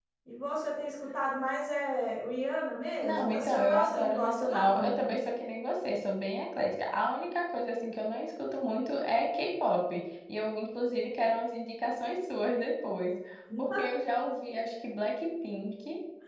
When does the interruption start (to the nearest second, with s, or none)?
3 s